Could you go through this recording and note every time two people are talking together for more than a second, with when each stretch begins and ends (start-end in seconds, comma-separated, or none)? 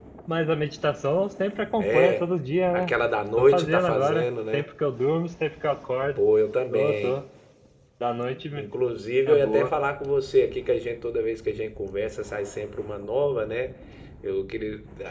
3.4-4.6